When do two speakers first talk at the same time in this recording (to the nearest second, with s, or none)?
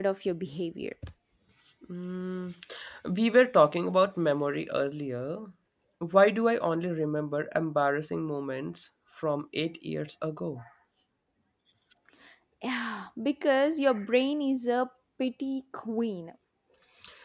none